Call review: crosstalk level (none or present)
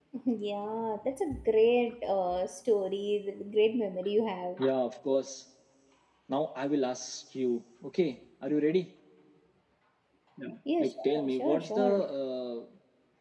present